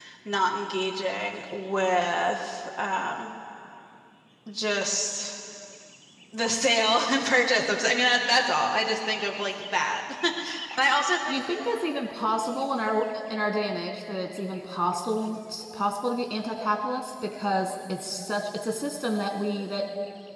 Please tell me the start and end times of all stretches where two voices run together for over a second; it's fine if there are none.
none

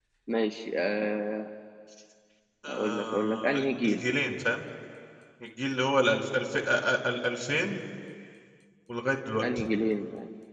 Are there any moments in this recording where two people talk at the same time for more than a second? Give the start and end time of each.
2.7-4.0

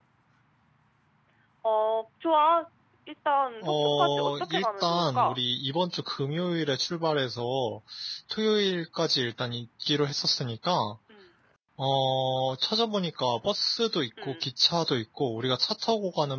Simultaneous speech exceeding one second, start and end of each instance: 3.6-5.4

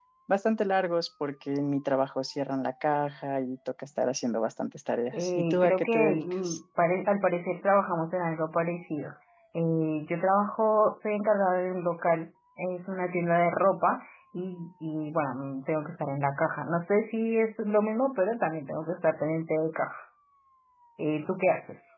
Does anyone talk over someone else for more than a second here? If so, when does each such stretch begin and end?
5.1-6.6

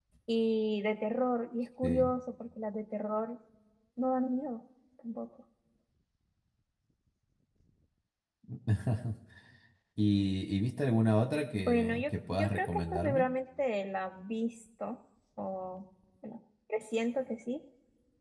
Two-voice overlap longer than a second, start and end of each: 11.5-13.2

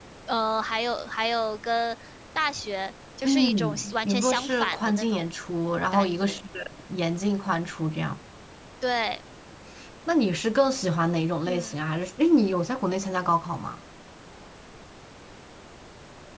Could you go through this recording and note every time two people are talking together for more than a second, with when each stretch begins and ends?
3.2-5.3

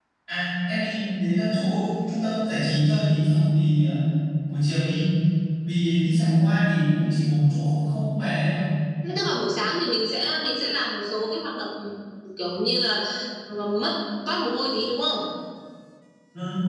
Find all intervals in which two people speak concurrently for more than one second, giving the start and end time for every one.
none

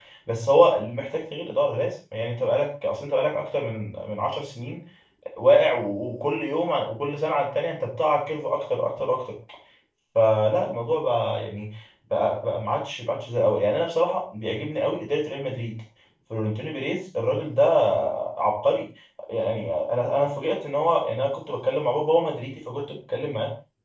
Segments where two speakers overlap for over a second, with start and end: none

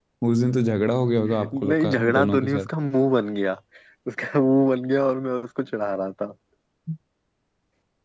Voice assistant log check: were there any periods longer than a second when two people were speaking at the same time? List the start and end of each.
1.3-2.7

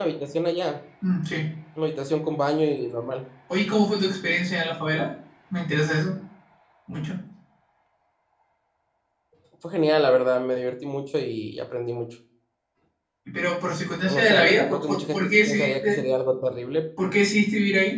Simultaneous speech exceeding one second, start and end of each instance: 13.9-16.0

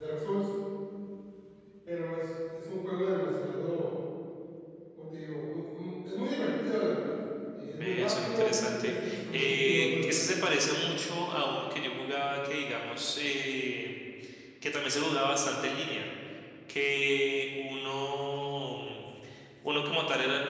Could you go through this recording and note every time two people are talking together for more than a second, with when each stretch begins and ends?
7.8-10.3

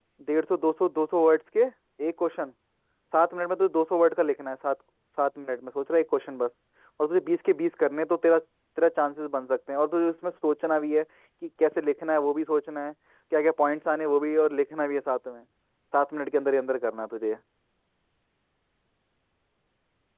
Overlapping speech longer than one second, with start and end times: none

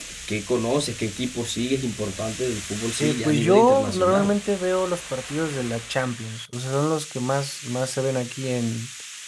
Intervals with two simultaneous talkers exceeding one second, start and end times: 3.0-4.3

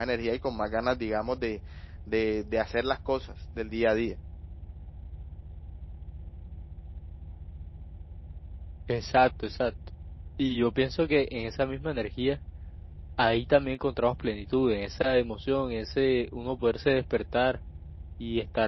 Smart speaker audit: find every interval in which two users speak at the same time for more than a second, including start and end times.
none

